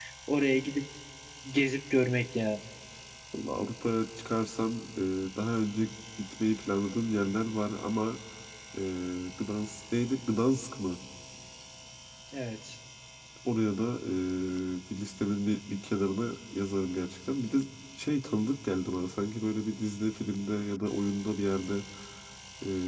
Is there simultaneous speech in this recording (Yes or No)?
No